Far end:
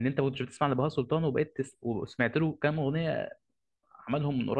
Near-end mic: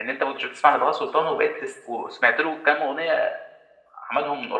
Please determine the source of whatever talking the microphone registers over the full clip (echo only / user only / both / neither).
echo only